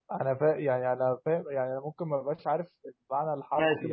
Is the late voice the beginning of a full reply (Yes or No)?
Yes